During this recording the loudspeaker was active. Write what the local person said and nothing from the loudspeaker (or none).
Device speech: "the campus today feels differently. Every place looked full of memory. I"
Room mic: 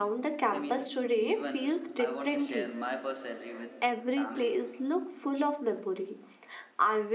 I mean, even I want to share my first salary with family